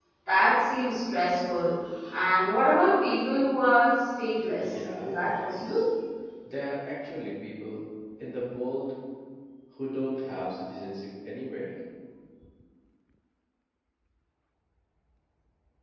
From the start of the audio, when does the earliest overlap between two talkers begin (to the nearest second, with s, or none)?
5 s